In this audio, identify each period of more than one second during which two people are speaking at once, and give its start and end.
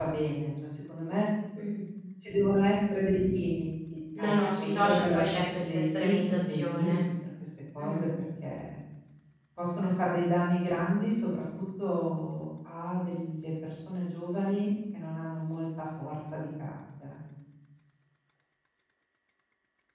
4.2-7.0

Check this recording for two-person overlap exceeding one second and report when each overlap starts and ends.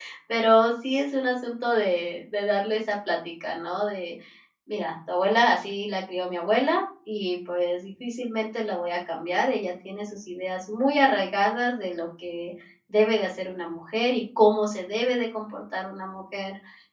none

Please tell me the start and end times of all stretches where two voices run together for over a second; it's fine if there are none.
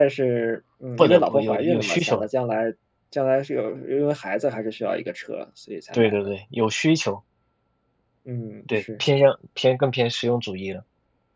1.0-2.3

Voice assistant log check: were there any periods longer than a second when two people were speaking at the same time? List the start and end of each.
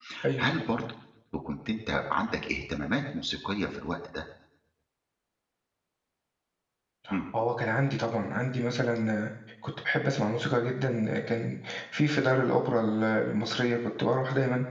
none

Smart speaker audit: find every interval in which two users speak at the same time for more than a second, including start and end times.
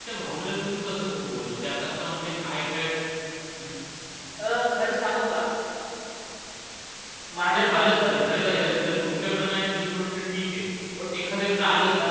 7.5-8.9

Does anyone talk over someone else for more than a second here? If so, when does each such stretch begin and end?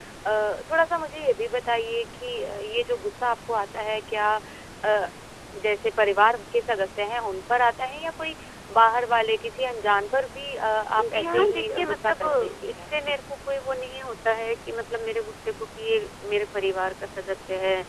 11.1-13.2

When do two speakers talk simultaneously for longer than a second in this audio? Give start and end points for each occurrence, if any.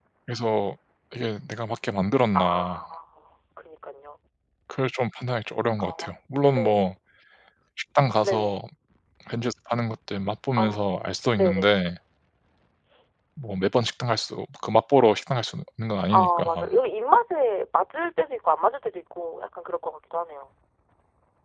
none

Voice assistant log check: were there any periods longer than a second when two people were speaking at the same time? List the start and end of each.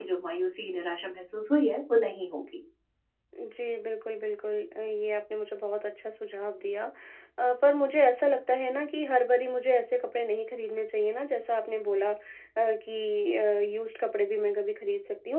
none

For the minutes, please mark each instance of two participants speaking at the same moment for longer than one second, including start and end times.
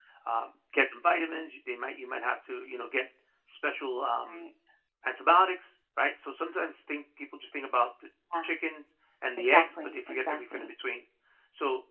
9.4-10.7

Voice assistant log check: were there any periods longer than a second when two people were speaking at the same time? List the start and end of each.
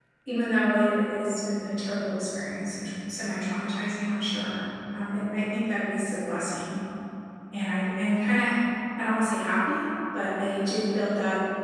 none

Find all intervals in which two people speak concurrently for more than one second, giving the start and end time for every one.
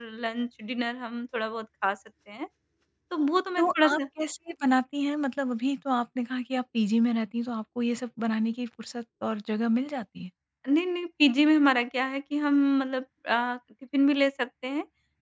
none

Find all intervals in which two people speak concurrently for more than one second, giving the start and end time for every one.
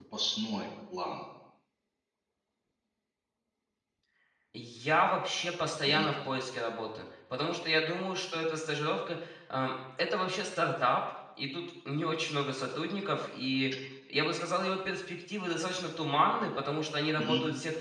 none

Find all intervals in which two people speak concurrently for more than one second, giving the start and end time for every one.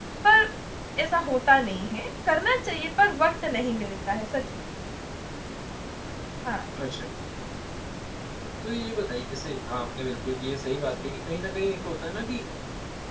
none

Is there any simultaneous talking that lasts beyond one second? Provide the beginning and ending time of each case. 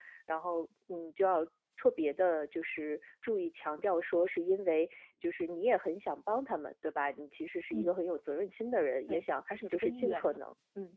9.1-10.4

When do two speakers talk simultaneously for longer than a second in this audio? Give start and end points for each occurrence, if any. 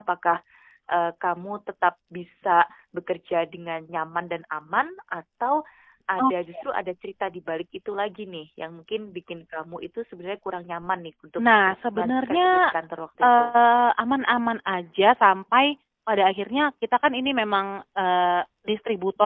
11.4-12.6

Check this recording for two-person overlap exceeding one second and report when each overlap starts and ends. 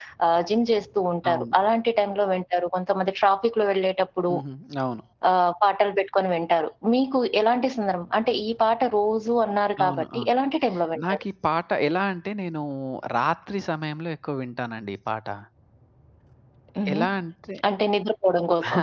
none

